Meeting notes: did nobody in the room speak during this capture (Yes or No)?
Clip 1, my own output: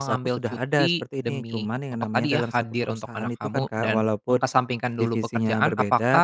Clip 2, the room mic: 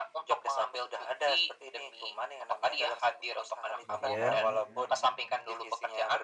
No